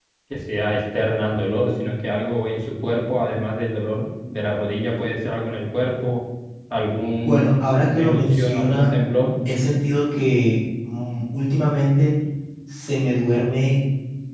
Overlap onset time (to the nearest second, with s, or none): 7 s